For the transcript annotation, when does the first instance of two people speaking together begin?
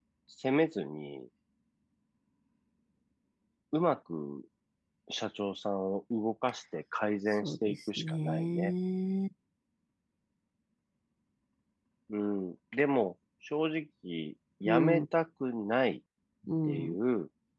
7.4 s

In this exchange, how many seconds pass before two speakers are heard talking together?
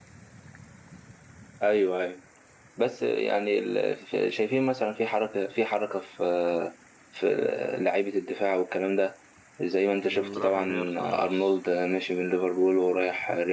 10.1 s

